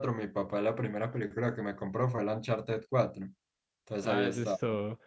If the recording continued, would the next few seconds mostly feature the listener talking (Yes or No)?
Yes